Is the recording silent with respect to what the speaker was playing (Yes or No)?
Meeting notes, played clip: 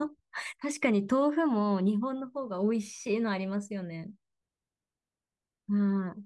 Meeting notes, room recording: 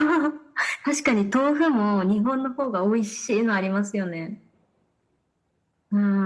No